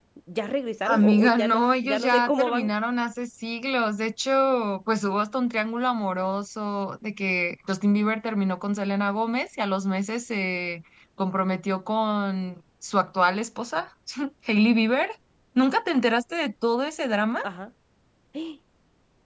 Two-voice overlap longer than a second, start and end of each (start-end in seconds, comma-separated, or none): 0.8-2.7